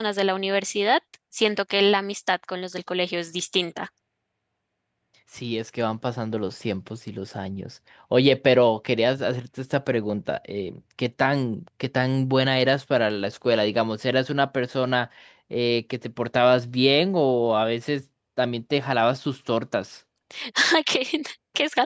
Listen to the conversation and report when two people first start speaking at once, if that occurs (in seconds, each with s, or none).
none